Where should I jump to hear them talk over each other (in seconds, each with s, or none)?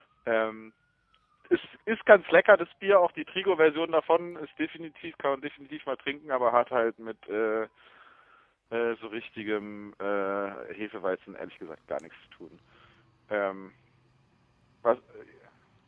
none